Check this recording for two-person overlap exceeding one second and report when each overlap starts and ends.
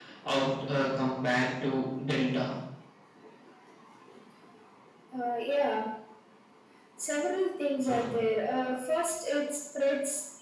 none

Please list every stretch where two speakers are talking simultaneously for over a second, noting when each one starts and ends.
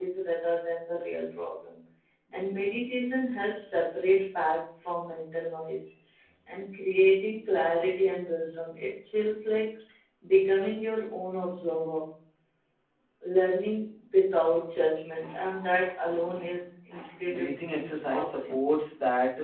17.3-18.6

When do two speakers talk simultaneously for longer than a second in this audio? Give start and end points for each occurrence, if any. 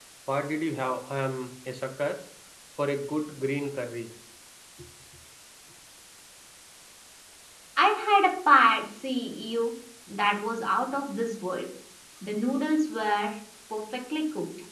none

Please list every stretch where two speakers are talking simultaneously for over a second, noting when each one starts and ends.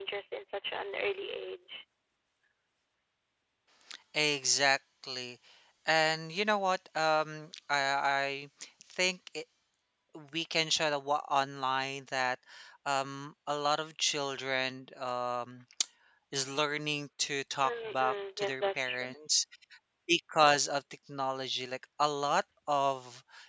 17.6-19.2

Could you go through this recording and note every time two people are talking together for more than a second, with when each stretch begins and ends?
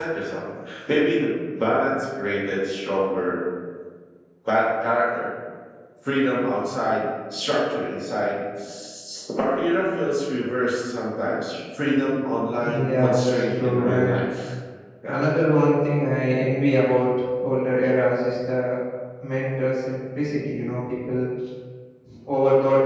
12.6-14.2

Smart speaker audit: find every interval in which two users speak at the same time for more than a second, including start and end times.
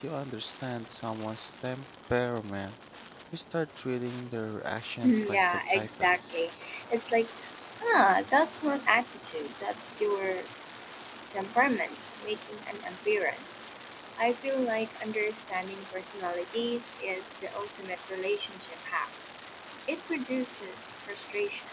5.0-6.4

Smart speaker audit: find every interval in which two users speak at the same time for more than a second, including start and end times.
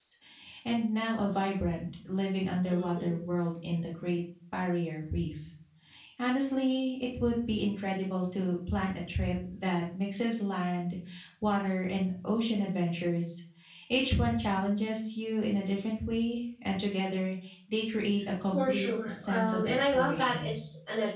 18.5-20.6

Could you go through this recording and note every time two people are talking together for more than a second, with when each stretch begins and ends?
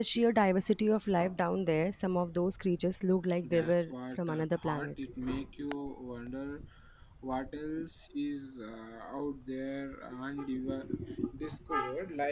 3.4-4.9

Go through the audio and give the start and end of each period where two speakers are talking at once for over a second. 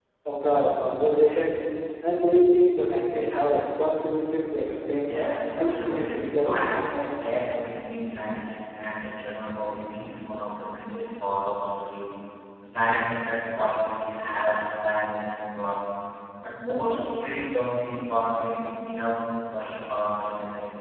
5.6-6.8

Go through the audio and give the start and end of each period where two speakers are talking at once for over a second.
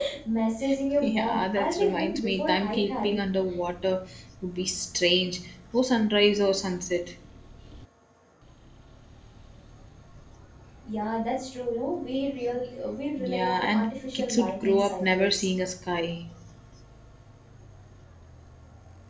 1.0-3.2, 13.2-15.4

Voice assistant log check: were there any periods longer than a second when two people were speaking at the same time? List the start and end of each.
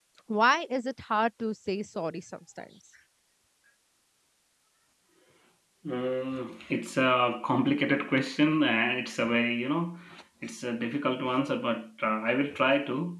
none

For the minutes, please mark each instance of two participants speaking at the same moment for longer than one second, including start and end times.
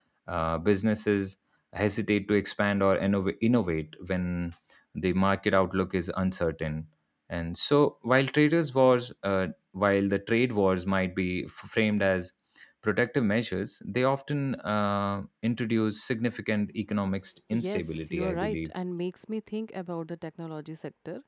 17.5-18.7

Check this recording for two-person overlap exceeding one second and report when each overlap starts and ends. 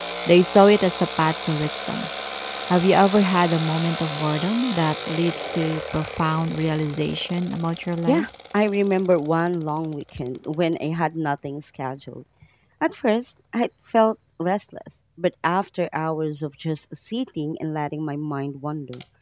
none

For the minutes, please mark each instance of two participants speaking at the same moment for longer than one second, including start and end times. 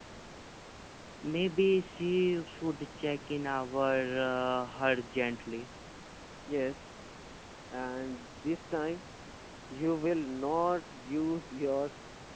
none

